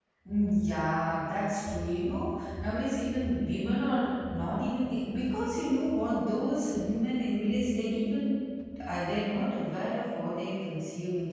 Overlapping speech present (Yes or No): No